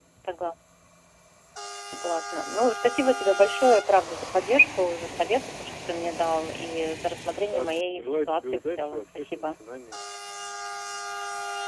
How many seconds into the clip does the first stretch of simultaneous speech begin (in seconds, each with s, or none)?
7.5 s